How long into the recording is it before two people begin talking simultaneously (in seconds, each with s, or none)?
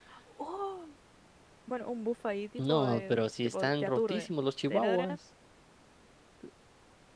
2.6 s